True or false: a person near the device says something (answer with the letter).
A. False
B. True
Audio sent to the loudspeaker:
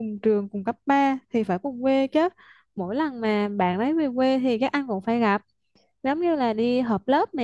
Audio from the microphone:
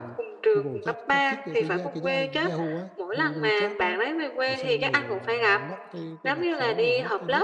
B